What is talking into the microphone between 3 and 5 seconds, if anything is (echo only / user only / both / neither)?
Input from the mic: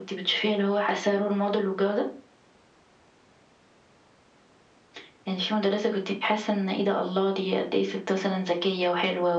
neither